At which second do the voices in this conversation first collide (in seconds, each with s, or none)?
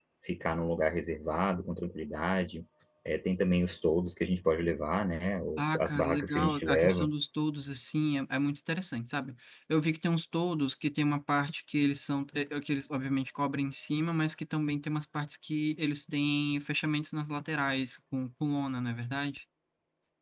5.6 s